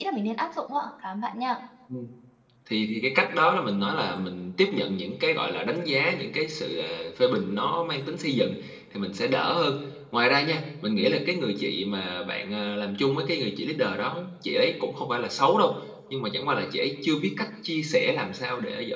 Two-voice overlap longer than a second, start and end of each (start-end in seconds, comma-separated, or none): none